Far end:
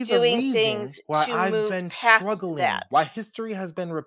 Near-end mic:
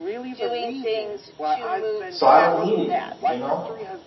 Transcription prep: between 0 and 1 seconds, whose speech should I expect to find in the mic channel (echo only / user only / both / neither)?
echo only